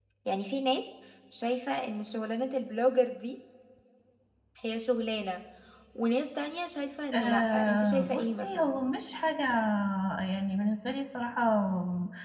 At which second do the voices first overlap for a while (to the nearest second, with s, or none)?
7 s